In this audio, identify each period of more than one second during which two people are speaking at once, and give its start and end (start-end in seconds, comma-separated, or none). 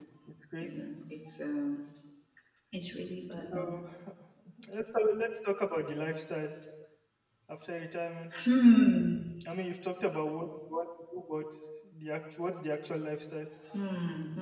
none